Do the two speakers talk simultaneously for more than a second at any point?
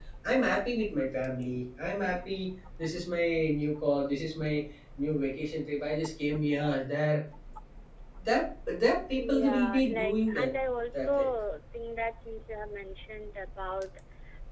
Yes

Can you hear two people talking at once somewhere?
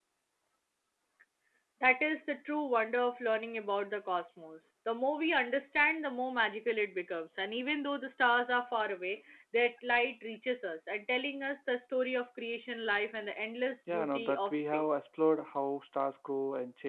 Yes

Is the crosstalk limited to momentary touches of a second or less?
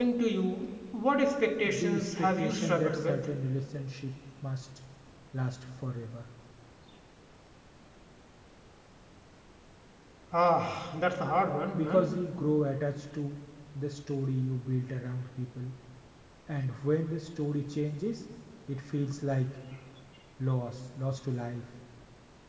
No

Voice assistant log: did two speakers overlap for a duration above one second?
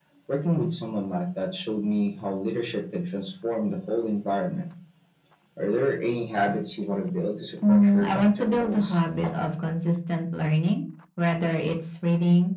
Yes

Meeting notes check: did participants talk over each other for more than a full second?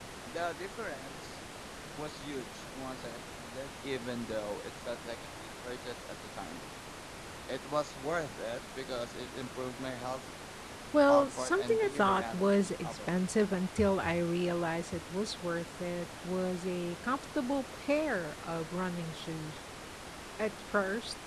Yes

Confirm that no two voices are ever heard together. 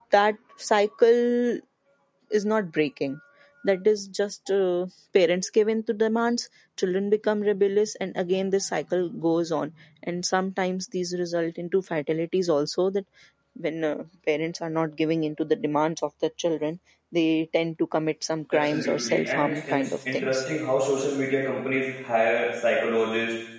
No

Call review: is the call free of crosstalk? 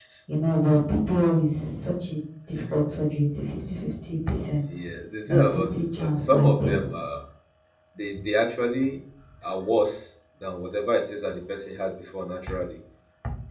No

